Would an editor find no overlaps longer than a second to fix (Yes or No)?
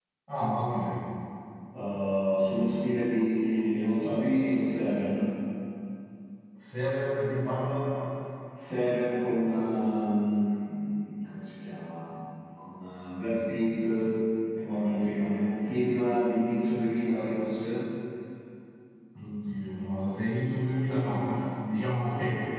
Yes